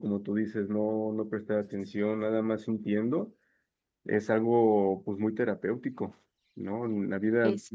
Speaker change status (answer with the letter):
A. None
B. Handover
A